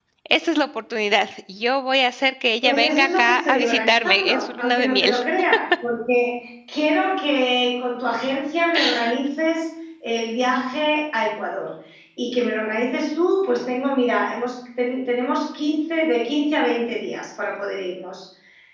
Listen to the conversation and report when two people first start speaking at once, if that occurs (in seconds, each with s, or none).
2.6 s